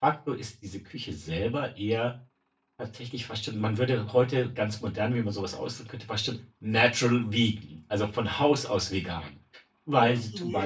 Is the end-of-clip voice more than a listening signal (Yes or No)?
No